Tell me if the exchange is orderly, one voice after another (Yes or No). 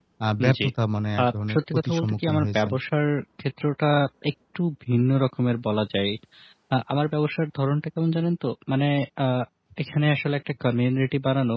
No